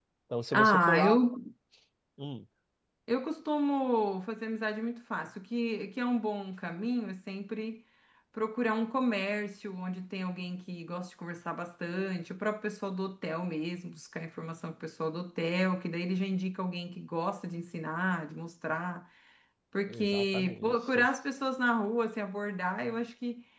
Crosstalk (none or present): present